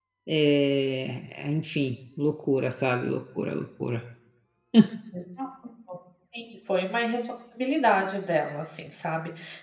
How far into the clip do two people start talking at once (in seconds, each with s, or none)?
none